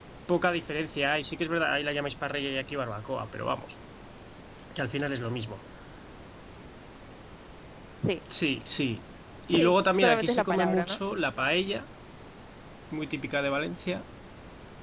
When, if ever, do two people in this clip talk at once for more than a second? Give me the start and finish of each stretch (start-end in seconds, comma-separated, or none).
9.5-11.0